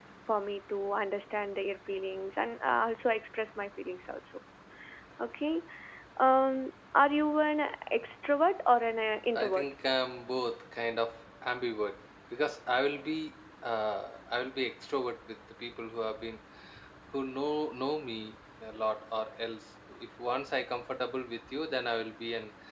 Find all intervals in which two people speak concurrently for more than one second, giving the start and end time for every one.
none

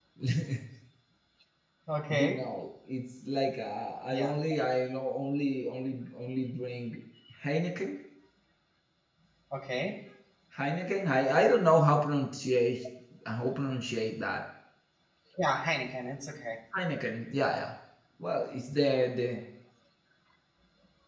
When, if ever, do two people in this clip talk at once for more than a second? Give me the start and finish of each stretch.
none

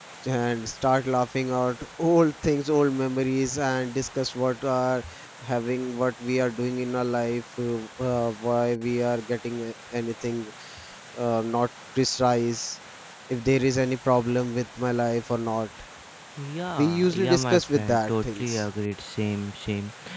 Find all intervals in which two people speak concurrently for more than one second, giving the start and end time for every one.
16.8-18.6

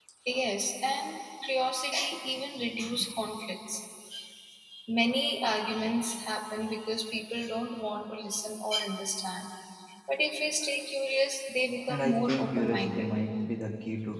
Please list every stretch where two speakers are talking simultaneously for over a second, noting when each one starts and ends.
11.9-13.1

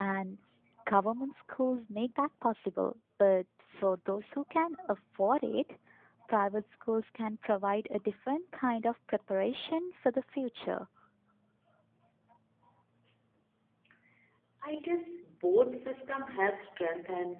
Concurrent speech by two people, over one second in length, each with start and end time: none

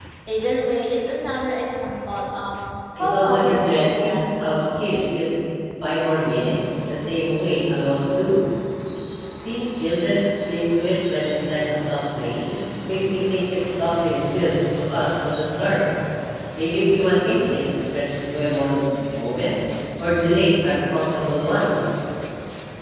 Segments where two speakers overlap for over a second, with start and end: 3.0-5.3

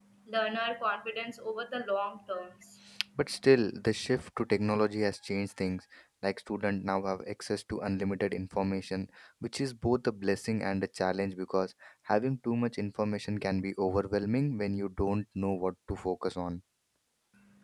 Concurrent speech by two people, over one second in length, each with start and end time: none

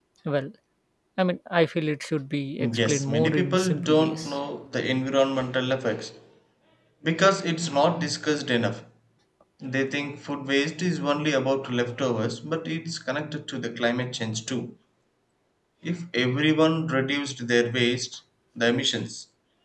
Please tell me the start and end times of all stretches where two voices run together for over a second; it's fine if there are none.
2.6-4.4

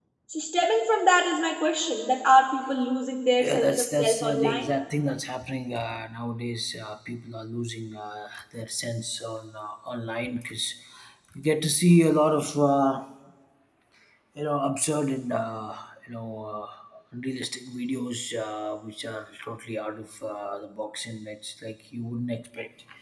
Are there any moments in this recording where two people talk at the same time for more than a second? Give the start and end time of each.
3.4-4.7

